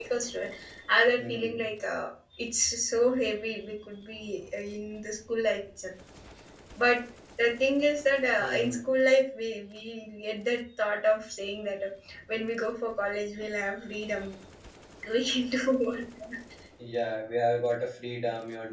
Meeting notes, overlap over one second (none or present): none